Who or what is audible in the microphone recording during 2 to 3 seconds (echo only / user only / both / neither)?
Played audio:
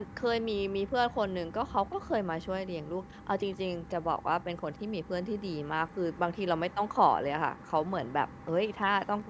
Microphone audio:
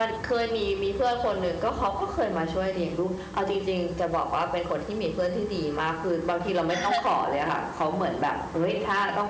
echo only